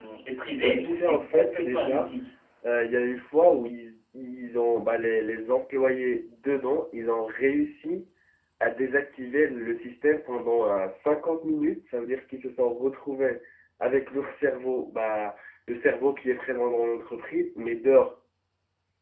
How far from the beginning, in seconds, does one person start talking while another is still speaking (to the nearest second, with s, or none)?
1 s